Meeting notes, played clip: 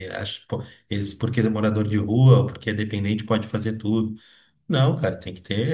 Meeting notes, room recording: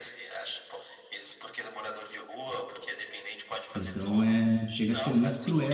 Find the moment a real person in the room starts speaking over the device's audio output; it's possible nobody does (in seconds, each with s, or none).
3.7 s